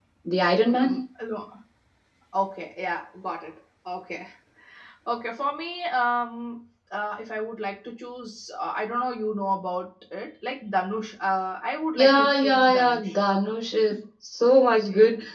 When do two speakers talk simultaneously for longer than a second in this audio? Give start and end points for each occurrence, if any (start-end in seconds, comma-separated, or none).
11.9-13.2